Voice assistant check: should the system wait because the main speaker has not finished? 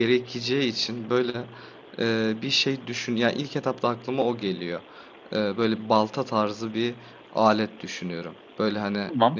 Yes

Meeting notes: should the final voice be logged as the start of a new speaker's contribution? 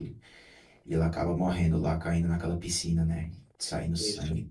No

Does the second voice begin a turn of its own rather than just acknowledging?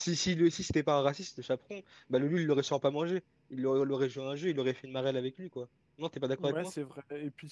Yes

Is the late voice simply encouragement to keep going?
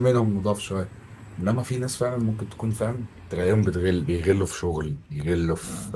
Yes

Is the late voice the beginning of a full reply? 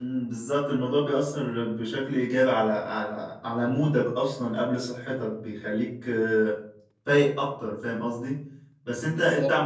No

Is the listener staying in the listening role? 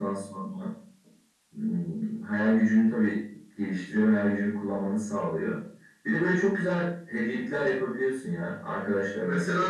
No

